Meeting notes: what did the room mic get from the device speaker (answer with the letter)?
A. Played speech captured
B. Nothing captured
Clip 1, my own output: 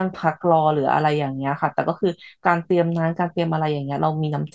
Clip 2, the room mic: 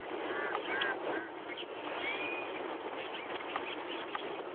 B